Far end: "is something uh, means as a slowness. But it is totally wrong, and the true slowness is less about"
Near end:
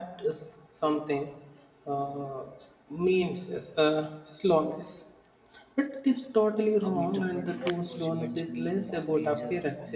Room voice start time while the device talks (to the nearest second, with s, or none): 7 s